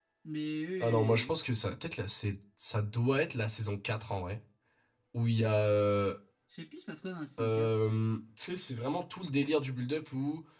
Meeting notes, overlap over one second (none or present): none